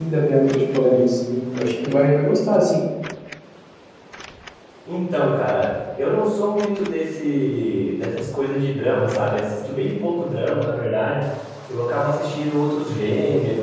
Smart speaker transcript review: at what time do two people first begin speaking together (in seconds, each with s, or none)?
none